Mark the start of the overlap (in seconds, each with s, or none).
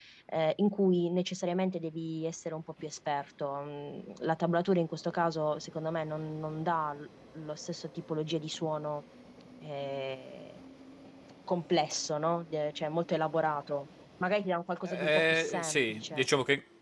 14.8 s